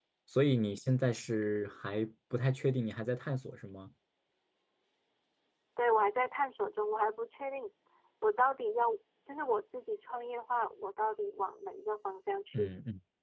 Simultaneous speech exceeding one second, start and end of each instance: none

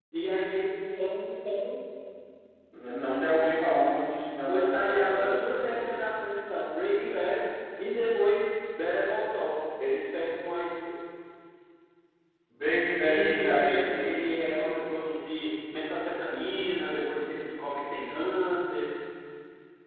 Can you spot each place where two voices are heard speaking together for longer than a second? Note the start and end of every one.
4.5-5.9, 13.0-14.9

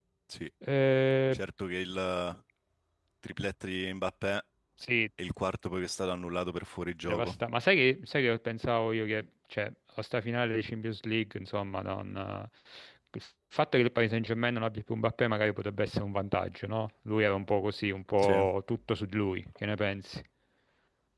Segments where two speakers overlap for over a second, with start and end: none

